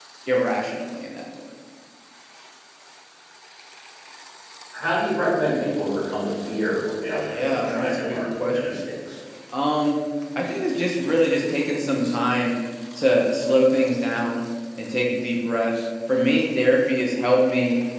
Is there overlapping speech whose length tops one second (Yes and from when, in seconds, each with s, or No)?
Yes, from 7.1 s